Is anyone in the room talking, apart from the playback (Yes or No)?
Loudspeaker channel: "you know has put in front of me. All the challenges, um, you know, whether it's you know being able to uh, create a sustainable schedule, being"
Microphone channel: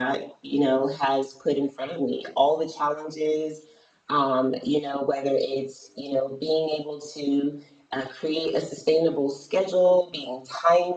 No